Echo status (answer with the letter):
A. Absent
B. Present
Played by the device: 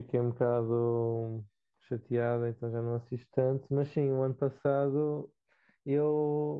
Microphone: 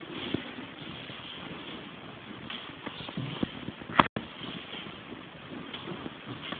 A